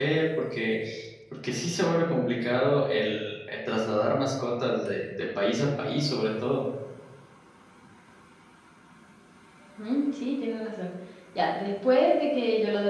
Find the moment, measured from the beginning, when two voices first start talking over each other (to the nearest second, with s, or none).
none